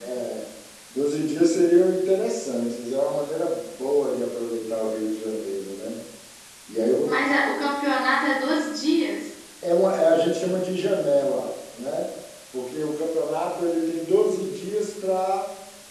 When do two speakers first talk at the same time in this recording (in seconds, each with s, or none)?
none